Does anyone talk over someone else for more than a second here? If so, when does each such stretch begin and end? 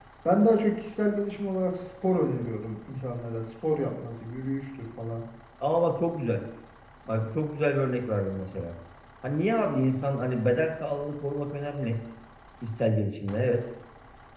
none

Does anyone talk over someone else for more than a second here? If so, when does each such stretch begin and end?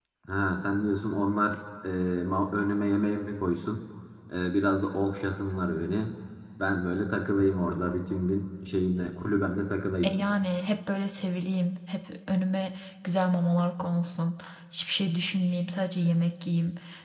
none

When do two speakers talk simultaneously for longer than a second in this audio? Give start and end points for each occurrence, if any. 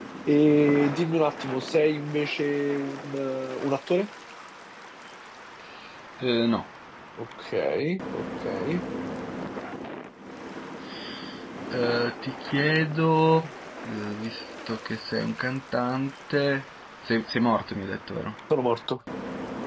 none

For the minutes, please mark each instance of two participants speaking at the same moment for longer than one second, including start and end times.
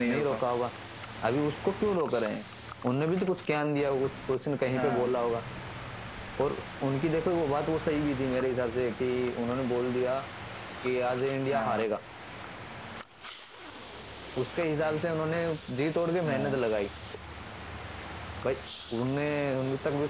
none

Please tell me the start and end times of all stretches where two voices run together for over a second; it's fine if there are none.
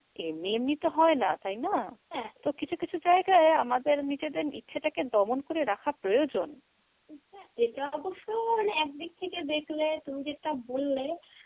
none

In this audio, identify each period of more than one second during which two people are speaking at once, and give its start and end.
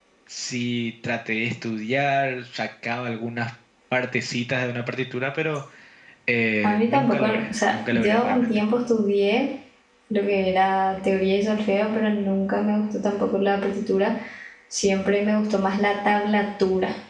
6.6-8.6

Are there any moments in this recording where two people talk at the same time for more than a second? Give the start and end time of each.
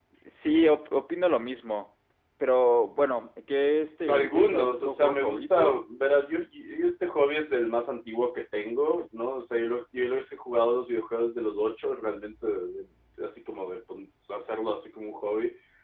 4.1-5.7

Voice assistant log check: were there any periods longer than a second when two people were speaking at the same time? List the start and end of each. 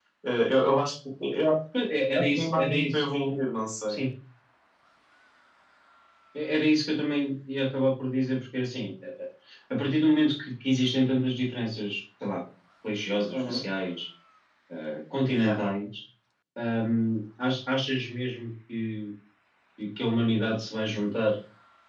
2.2-3.4

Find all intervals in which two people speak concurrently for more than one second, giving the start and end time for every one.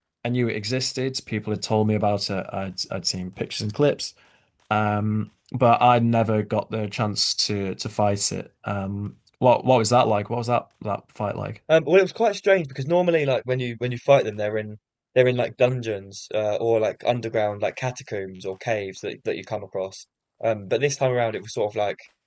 none

